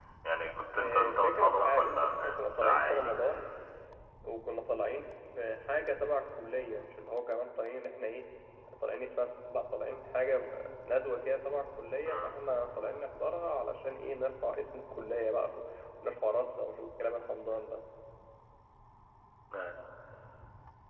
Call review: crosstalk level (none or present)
present